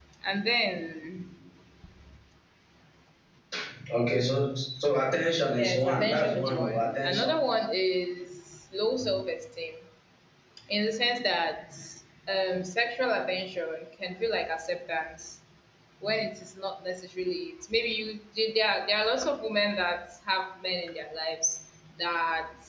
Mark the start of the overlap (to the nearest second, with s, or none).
6 s